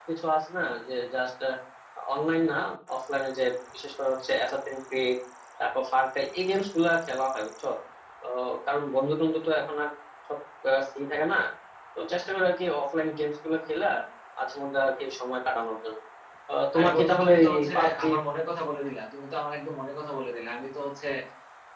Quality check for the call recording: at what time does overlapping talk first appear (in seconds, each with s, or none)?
16.8 s